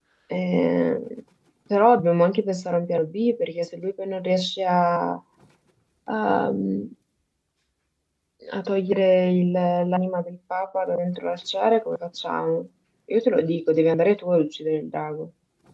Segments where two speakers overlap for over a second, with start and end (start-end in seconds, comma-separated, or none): none